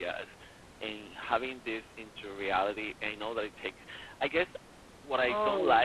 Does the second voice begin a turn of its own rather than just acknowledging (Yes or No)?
No